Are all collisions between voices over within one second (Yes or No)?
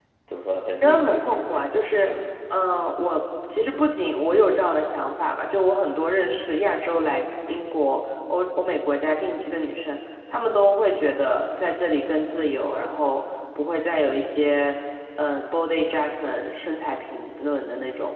No